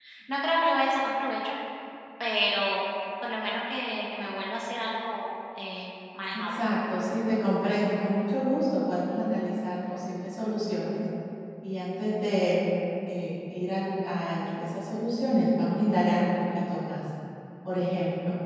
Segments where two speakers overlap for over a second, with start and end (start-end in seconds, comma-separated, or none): none